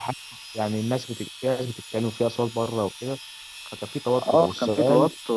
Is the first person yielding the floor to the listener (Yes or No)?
Yes